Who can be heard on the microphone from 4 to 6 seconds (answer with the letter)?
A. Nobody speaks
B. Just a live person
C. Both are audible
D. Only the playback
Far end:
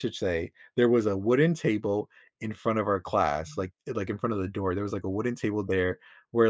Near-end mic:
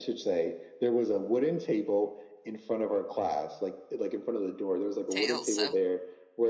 C